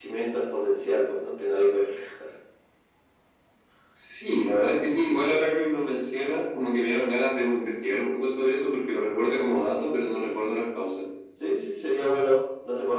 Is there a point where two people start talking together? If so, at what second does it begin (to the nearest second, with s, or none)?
none